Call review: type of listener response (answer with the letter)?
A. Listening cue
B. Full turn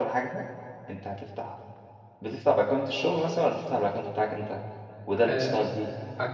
B